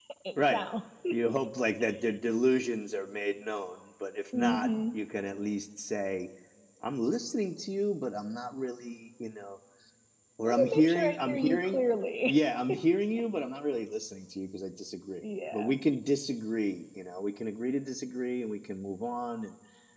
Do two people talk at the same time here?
Yes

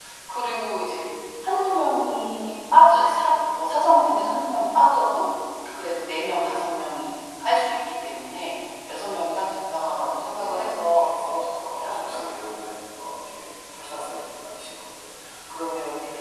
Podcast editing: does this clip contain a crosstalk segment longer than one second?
Yes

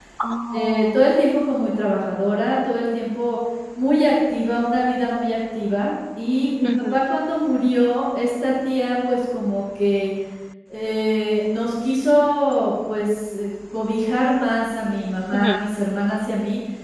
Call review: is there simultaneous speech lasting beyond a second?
No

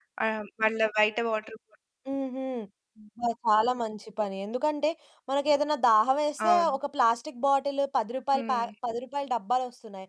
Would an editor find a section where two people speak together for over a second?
No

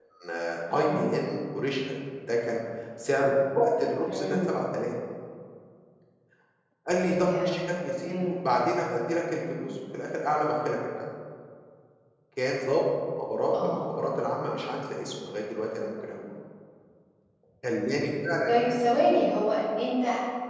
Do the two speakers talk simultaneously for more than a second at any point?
No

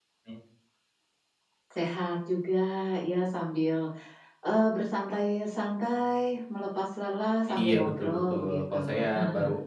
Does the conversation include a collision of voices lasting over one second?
Yes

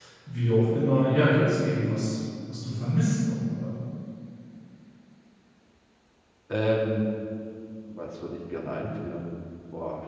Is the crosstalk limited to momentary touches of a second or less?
Yes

